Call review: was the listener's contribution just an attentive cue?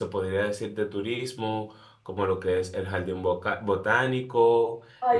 No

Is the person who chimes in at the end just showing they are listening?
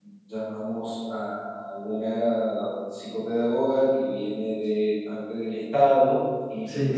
Yes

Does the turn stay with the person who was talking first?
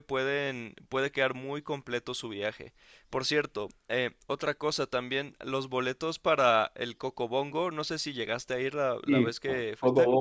No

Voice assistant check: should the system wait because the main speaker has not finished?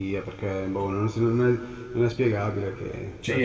No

